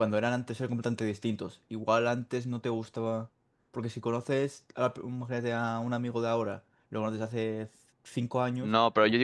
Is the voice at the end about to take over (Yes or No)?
Yes